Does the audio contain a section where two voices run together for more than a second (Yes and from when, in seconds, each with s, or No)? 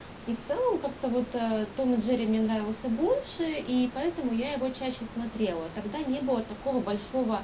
No